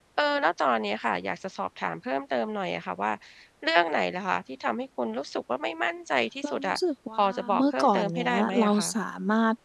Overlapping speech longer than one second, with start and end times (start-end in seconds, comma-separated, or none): 7.2-8.9